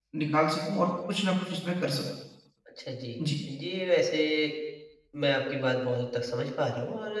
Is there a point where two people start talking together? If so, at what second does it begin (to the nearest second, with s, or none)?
none